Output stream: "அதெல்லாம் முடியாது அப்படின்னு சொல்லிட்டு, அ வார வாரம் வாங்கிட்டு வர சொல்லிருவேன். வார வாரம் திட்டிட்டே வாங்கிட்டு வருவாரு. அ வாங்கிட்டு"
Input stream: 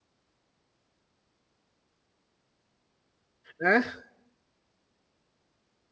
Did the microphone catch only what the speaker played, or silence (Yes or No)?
No